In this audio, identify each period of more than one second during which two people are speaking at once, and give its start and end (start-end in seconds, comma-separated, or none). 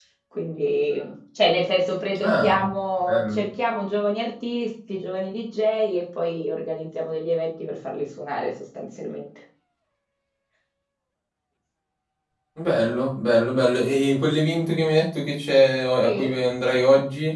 none